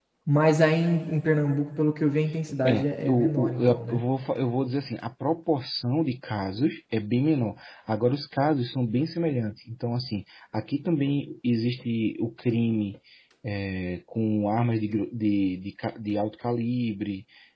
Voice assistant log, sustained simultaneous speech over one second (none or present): present